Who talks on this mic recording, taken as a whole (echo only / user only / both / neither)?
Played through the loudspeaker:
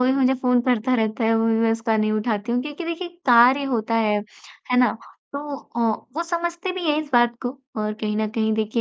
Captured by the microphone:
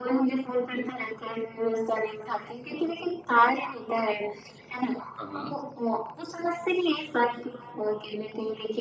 both